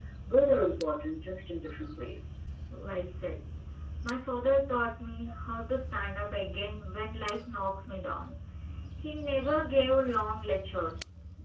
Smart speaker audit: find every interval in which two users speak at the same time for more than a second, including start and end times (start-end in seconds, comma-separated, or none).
none